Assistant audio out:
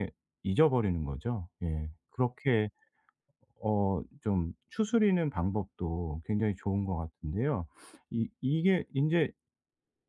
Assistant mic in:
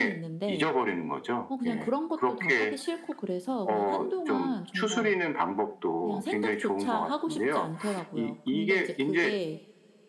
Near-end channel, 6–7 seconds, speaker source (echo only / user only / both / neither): both